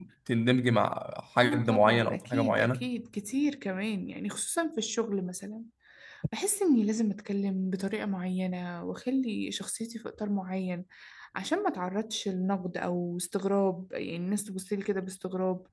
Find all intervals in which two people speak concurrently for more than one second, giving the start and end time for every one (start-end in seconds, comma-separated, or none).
1.4-2.9